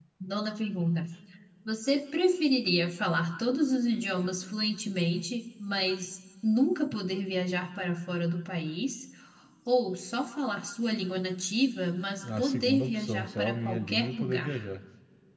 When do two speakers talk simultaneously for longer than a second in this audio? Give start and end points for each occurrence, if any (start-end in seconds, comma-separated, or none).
12.4-14.7